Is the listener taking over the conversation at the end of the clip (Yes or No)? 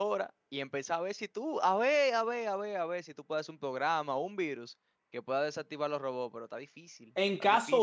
Yes